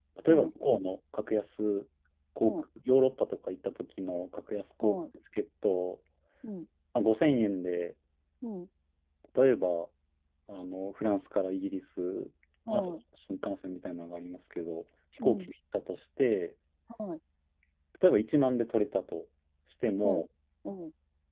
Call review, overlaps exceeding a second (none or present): none